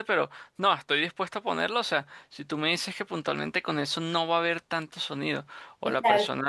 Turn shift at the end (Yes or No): No